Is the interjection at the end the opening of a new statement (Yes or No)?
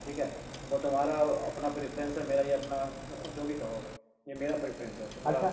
Yes